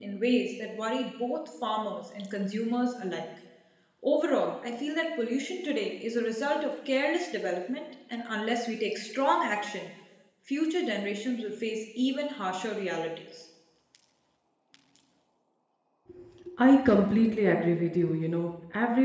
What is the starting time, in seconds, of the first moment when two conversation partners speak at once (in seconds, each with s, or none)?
none